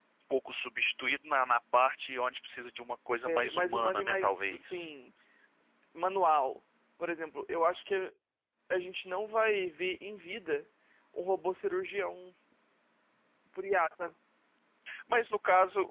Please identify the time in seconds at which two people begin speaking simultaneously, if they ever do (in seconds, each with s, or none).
3.2 s